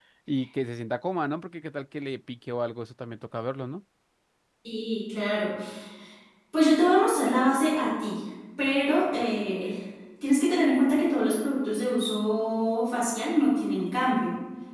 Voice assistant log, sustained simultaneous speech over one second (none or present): none